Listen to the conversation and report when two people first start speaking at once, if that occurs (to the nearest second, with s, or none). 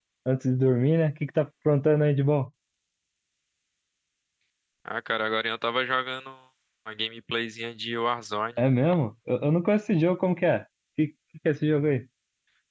none